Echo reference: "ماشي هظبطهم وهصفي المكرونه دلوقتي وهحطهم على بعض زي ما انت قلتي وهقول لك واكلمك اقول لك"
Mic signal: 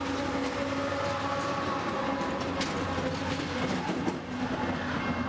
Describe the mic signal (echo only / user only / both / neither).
neither